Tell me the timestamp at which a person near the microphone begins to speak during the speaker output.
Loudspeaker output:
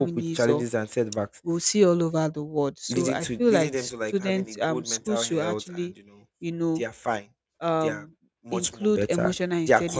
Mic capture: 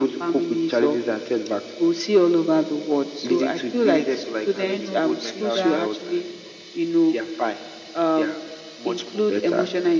4.6 s

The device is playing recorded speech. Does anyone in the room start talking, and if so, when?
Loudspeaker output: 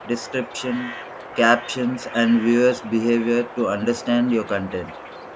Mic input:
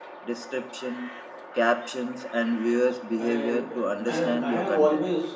3.1 s

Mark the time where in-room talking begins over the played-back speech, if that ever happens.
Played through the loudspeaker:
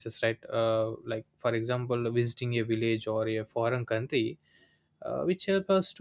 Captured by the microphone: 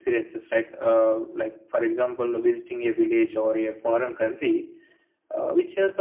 none

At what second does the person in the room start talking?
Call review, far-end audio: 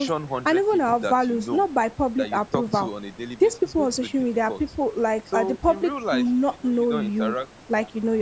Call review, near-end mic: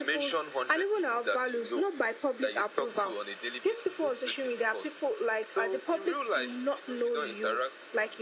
none

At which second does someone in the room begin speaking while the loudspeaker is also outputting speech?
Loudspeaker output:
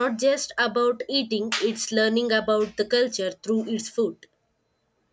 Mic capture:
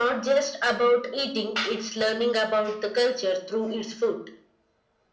none

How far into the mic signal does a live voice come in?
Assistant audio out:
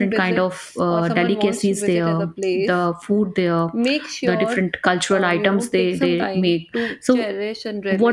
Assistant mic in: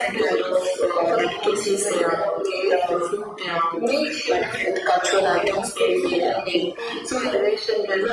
none

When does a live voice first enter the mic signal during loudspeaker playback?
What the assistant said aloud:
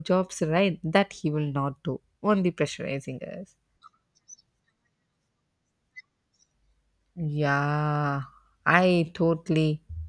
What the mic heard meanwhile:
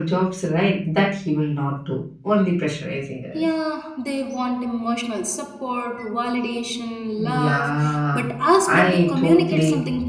3.3 s

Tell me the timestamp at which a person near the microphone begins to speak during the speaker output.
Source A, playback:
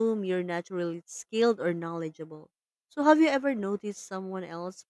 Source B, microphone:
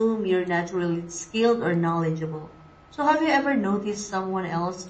none

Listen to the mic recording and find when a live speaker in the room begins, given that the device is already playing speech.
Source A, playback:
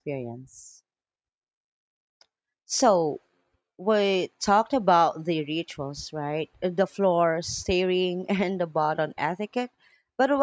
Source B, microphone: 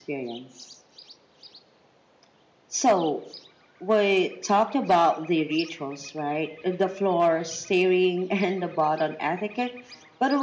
none

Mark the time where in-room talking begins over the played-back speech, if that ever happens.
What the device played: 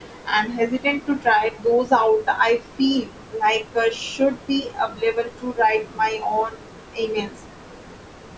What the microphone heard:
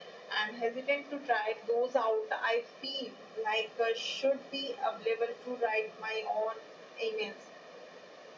none

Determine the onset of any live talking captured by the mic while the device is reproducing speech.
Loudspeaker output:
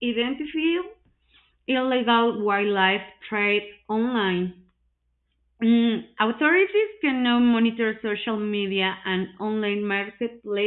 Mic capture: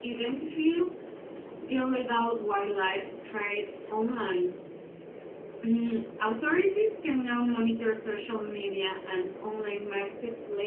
none

